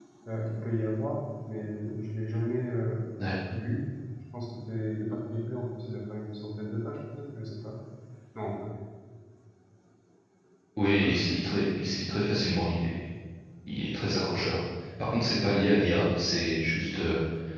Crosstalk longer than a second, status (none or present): none